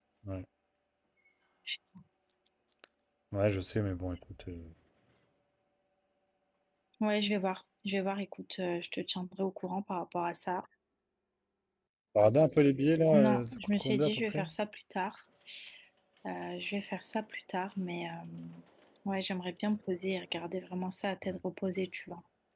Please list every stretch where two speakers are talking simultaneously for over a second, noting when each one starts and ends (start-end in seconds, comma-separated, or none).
13.1-14.5